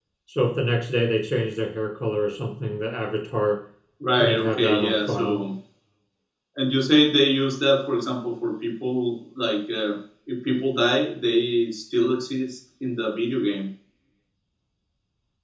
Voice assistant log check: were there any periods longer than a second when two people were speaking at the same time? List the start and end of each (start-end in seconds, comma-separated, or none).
4.2-5.4